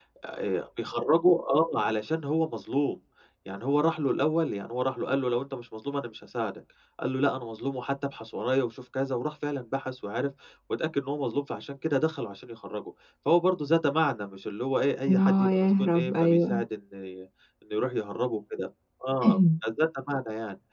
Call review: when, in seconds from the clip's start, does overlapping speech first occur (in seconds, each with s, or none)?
15.1 s